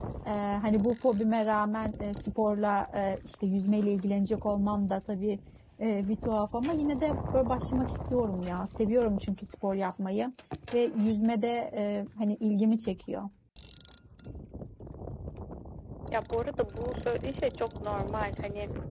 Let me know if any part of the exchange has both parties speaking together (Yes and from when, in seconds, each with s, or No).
No